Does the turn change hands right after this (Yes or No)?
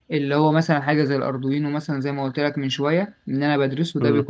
No